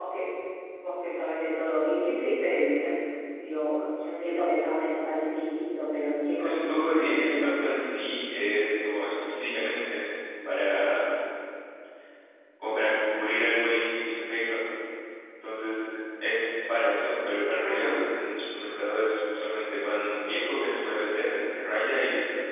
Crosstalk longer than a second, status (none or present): present